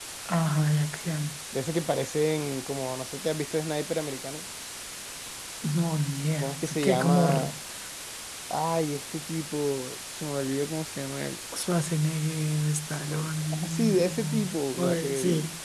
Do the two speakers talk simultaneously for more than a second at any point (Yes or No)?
Yes